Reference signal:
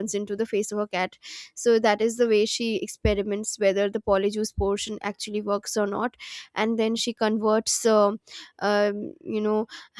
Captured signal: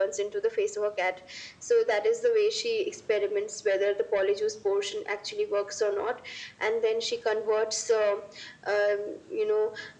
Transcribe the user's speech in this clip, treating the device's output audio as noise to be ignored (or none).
none